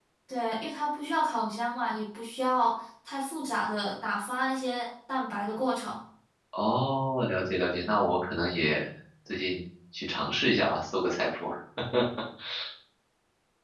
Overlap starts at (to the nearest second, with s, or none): none